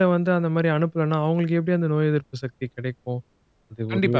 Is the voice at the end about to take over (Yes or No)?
No